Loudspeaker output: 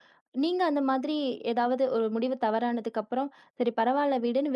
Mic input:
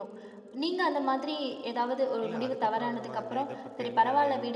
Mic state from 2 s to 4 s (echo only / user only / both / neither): both